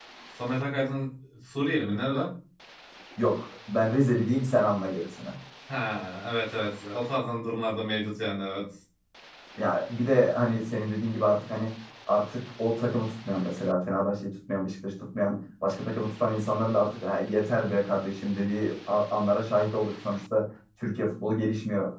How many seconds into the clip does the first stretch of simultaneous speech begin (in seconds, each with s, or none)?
none